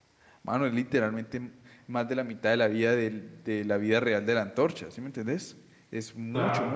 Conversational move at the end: listening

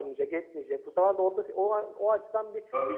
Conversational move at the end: taking over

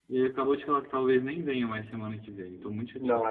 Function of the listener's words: taking over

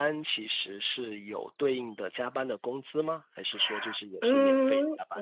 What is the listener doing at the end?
taking over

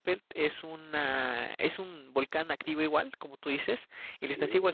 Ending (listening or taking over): listening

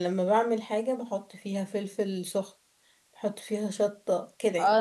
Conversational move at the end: taking over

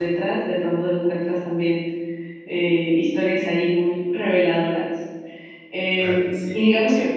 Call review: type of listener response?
listening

